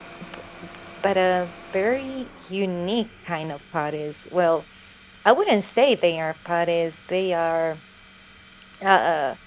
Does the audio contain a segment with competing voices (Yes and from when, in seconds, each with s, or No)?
No